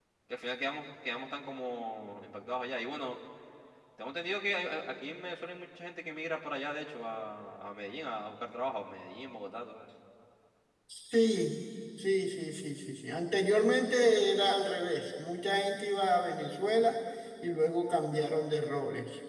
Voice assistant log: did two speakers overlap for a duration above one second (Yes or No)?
No